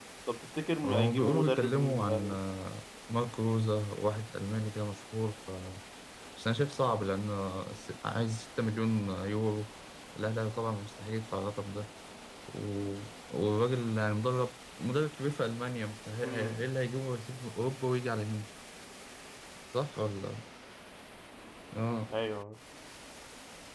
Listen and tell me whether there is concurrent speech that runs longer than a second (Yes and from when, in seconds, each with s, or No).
Yes, from 0.8 s